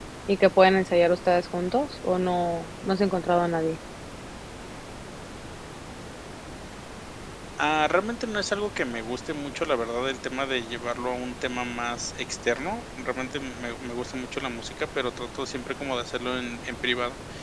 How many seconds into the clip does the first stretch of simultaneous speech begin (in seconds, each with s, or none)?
none